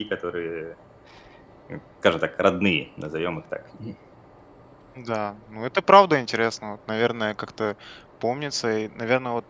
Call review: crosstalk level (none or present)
none